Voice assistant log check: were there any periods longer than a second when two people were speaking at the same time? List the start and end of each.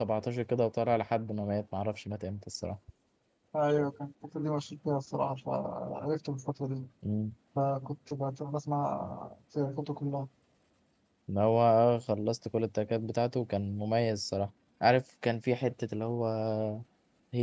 none

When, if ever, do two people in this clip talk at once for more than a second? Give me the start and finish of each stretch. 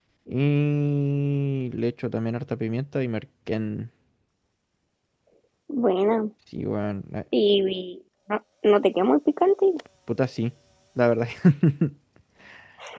none

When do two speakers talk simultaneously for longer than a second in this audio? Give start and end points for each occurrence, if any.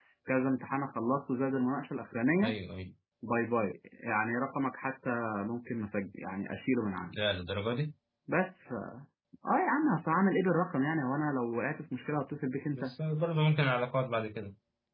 none

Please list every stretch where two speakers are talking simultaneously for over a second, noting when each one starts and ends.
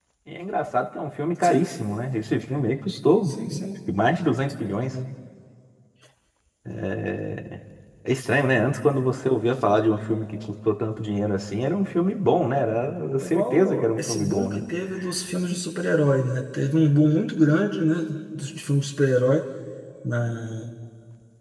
13.2-14.6

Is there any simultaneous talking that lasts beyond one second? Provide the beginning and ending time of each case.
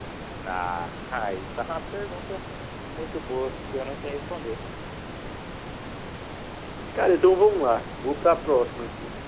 none

